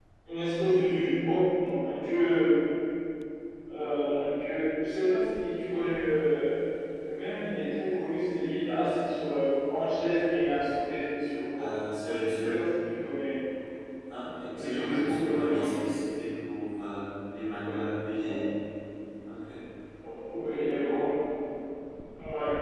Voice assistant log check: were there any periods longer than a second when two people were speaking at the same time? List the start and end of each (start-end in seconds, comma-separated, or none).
14.6-16.0